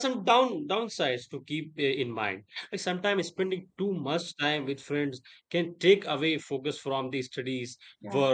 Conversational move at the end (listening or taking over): listening